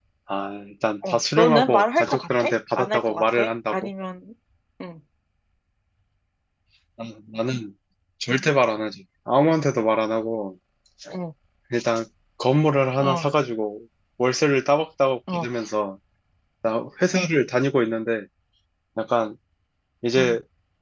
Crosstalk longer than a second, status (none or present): present